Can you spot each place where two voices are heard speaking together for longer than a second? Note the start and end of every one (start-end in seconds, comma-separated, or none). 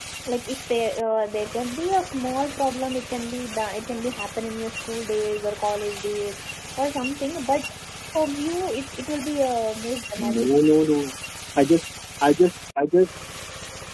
none